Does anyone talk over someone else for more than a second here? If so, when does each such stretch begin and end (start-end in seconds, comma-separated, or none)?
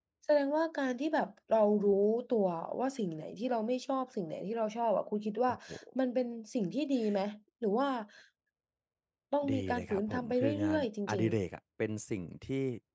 9.5-11.4